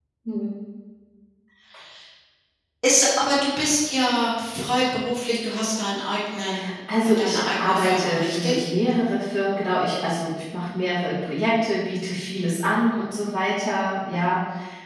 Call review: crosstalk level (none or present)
present